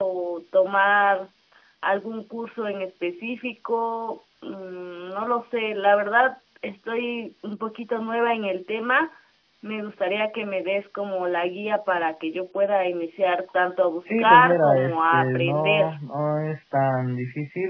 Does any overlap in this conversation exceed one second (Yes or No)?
Yes